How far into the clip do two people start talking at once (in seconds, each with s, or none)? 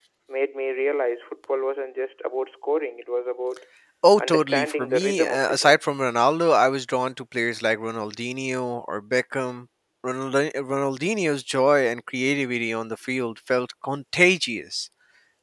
4.2 s